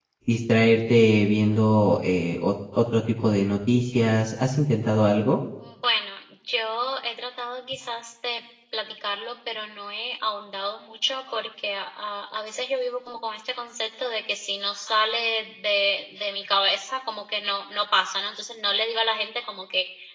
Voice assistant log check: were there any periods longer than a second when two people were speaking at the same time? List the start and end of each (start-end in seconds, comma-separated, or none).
none